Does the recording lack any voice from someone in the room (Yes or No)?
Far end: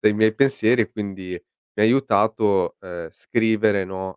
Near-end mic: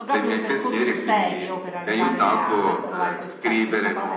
No